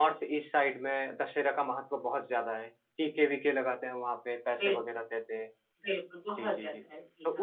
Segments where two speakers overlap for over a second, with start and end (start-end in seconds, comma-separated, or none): none